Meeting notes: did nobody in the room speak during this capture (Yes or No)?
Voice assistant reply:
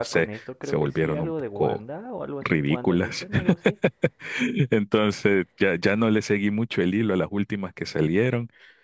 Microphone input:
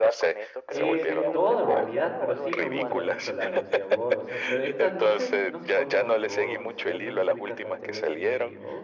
No